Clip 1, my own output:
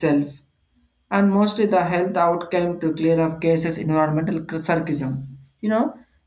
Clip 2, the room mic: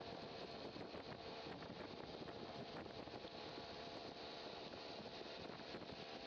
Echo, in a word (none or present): none